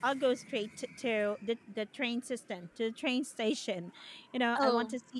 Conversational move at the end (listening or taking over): listening